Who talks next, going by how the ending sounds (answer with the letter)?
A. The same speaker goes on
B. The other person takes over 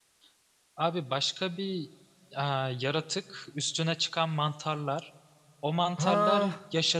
A